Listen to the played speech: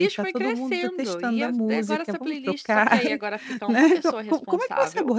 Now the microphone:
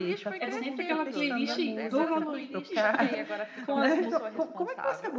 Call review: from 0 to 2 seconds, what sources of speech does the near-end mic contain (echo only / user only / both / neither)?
both